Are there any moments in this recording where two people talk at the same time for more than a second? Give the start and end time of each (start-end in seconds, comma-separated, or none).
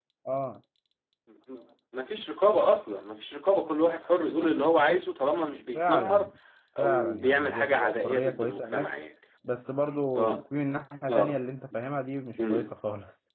6.8-8.9